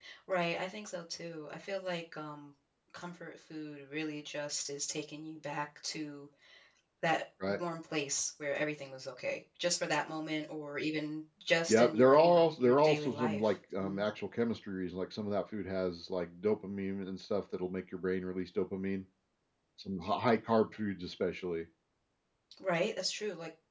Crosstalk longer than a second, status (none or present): present